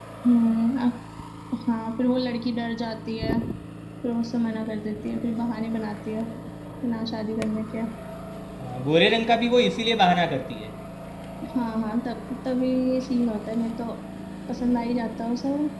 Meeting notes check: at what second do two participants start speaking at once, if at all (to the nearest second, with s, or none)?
none